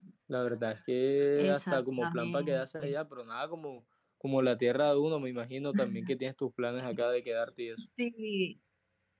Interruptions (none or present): present